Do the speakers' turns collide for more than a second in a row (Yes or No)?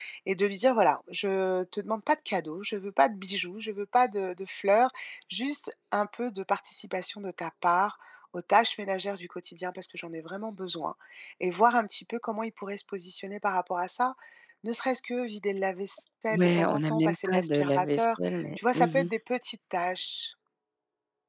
Yes